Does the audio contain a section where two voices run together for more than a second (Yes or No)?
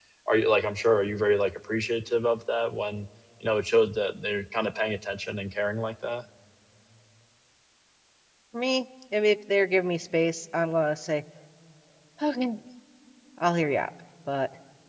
No